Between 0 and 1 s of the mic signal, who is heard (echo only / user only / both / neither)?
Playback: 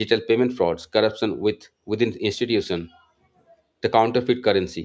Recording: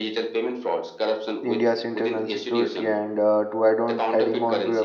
echo only